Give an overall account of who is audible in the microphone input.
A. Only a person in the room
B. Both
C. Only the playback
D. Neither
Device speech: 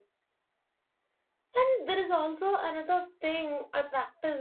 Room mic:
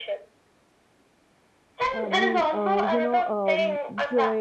B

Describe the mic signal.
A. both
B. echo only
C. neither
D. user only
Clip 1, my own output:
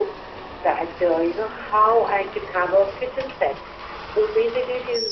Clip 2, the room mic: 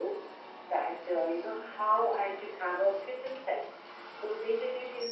B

